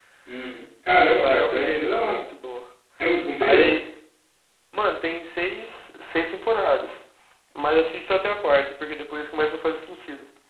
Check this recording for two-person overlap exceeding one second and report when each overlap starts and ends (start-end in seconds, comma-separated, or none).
1.0-2.2